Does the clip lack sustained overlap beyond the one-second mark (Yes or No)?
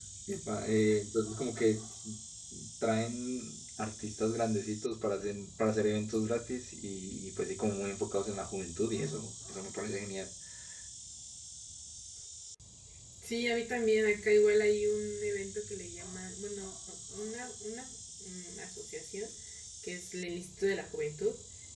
Yes